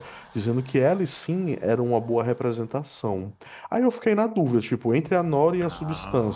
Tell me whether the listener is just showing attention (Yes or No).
Yes